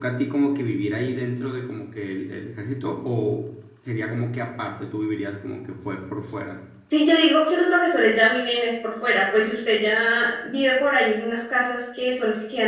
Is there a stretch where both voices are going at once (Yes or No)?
No